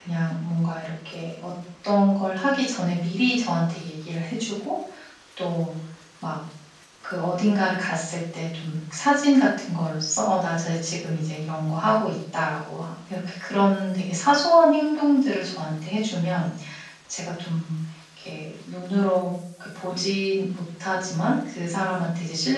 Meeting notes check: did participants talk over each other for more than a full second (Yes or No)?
No